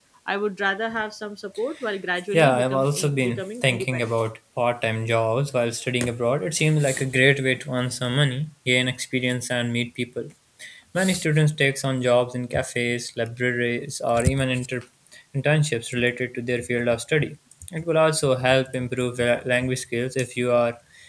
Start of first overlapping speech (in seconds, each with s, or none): 2.3 s